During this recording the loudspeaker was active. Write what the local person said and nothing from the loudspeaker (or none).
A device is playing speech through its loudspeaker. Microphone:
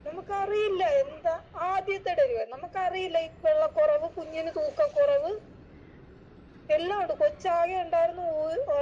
none